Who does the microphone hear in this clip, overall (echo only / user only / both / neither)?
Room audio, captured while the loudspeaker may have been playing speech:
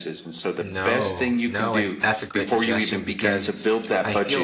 both